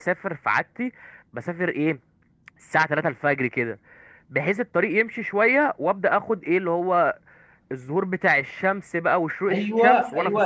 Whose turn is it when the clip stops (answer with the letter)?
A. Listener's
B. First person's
A